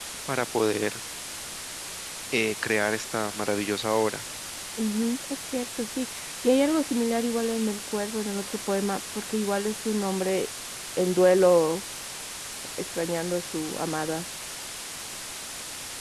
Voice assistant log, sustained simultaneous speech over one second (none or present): none